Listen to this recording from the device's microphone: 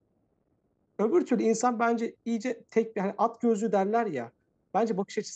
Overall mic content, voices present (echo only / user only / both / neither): user only